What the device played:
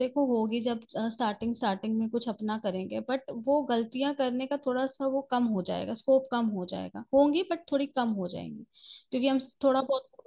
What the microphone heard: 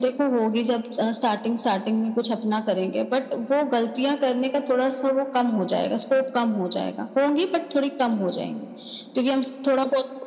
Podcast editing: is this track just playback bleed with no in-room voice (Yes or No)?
Yes